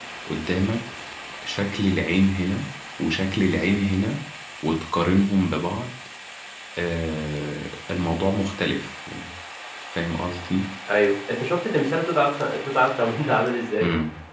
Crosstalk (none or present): none